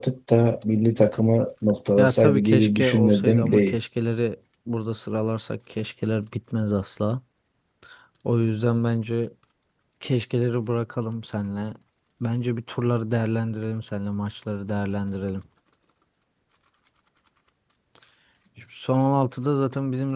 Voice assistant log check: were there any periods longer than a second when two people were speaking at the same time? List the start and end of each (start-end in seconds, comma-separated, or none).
2.0-3.8